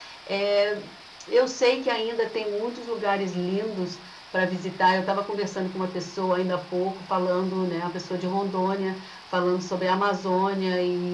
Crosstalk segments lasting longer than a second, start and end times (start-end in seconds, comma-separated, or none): none